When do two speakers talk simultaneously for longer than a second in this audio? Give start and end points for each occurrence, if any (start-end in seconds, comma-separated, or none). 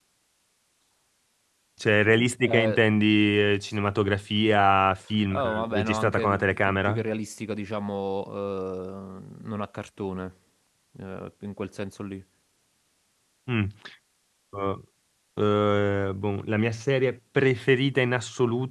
5.3-7.0